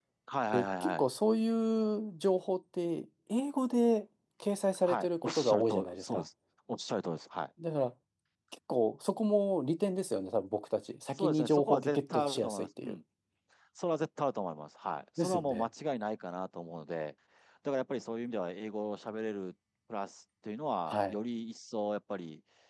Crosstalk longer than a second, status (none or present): present